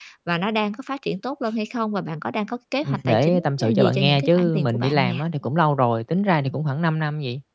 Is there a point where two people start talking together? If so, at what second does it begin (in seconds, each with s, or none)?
2.8 s